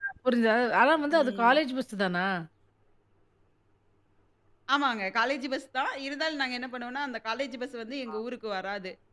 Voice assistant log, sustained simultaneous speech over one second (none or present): none